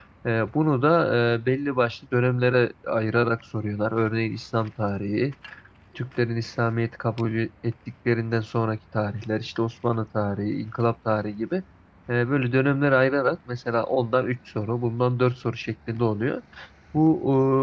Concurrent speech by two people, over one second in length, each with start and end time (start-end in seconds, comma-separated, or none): none